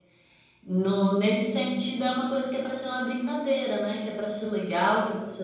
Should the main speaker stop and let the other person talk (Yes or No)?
No